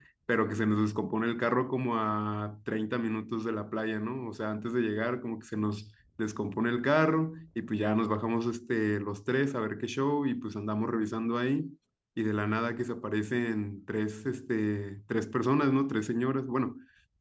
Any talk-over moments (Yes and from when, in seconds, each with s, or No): No